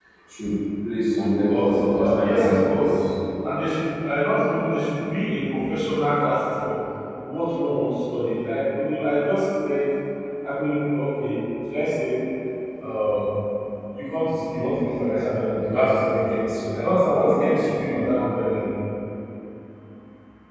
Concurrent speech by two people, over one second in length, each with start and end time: 1.5-3.0

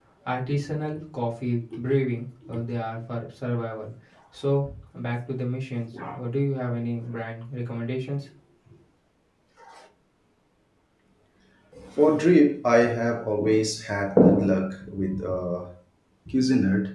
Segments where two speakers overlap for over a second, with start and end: none

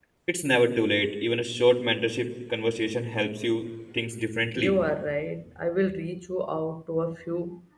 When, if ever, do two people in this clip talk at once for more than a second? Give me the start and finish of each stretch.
none

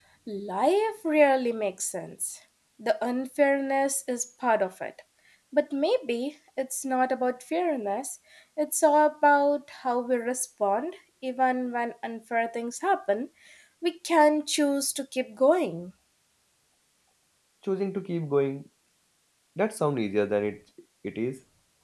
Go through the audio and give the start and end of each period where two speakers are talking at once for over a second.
none

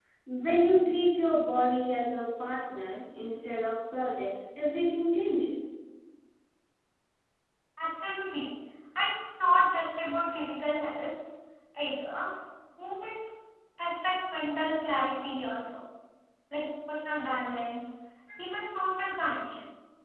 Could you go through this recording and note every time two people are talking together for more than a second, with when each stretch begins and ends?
none

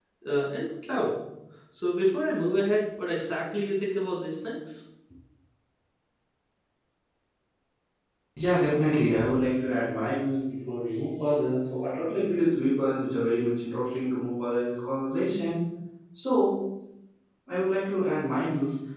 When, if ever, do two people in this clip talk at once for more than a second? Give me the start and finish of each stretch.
none

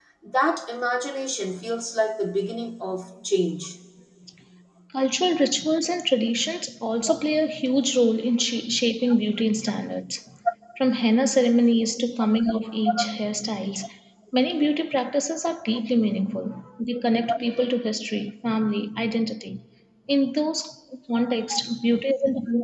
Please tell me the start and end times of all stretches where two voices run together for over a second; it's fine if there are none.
none

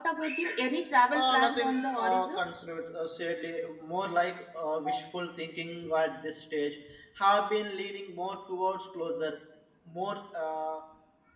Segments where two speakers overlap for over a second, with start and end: 1.1-2.6

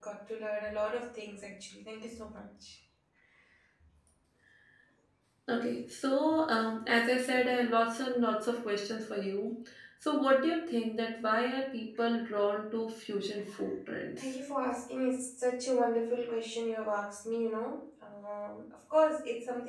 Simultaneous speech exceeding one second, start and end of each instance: none

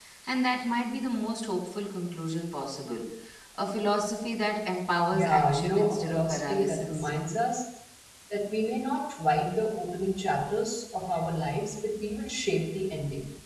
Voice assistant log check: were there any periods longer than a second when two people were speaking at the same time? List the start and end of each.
5.1-7.1

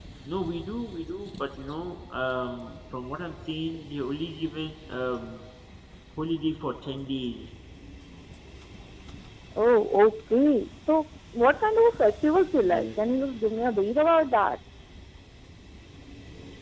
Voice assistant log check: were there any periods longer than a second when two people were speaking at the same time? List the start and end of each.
none

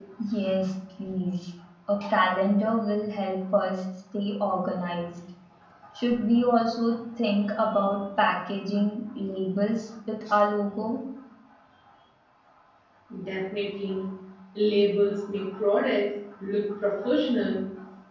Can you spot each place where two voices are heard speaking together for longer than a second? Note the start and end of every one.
none

